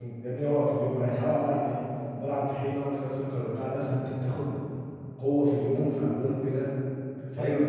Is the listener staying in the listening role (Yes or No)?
No